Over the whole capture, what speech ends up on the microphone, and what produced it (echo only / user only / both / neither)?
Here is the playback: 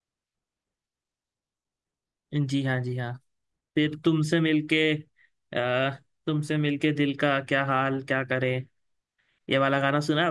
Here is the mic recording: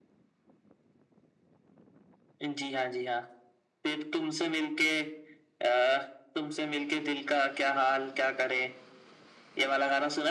echo only